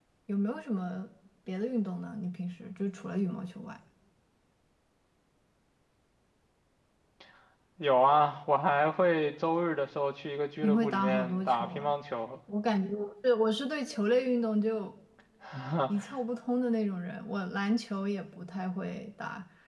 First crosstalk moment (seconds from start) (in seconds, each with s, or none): 10.6 s